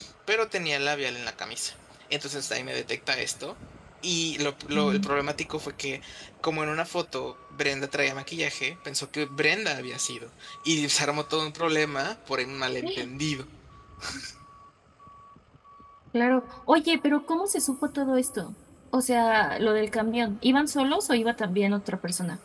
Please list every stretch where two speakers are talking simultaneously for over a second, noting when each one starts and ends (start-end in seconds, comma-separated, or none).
none